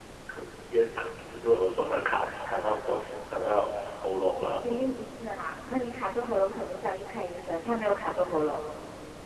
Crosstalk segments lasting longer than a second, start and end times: none

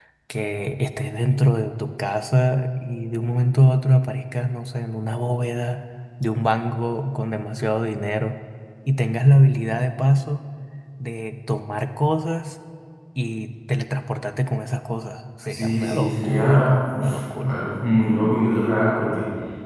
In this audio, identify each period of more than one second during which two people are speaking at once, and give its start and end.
15.5-17.6

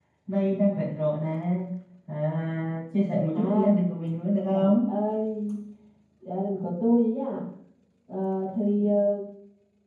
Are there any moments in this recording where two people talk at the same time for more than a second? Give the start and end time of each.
none

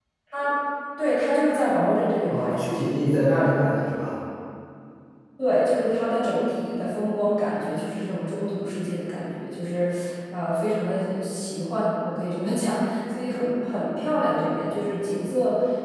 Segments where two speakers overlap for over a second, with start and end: none

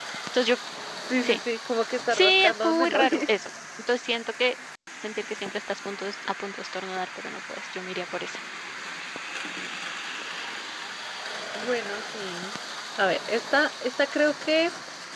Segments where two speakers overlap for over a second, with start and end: 2.1-3.3

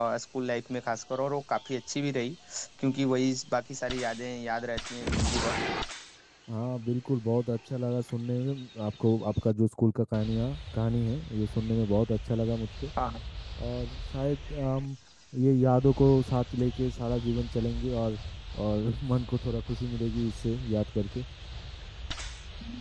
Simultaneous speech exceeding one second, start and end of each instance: none

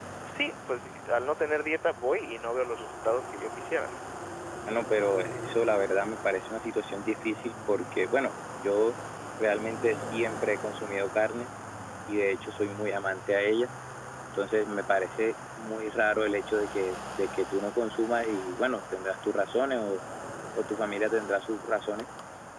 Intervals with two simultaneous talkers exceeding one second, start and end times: none

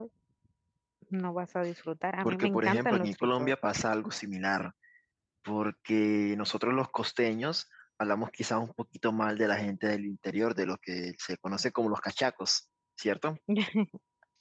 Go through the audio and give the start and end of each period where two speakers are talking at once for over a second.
2.2-3.5

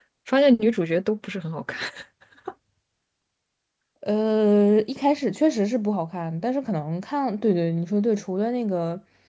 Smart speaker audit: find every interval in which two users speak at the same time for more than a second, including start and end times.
none

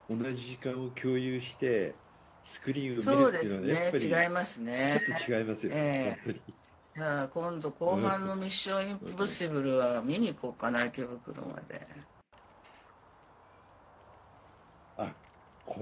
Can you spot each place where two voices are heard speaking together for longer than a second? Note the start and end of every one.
3.0-4.2

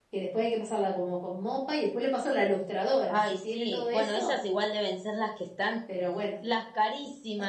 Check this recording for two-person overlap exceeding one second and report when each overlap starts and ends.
3.1-4.3

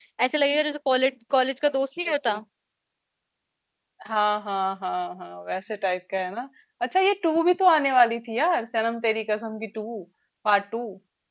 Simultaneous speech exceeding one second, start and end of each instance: none

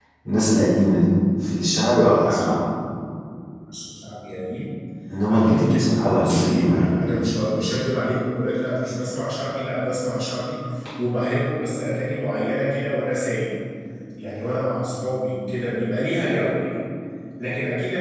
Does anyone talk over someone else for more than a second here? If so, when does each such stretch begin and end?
5.3-7.0

